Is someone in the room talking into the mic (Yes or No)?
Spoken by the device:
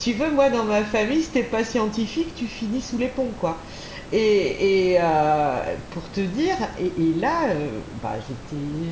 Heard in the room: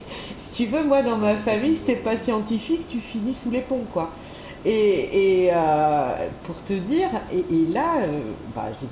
Yes